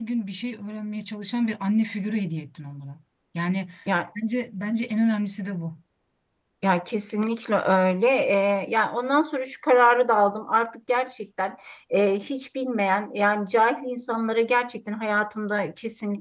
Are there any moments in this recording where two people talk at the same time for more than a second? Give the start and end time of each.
none

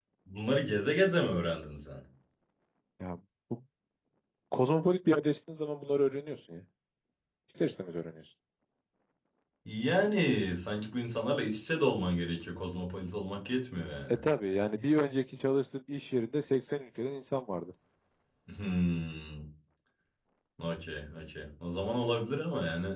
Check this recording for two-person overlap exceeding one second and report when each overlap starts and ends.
none

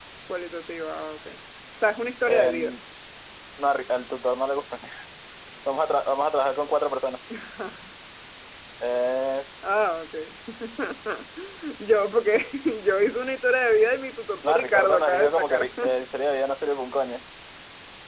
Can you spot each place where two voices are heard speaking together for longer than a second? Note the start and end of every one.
14.4-15.7

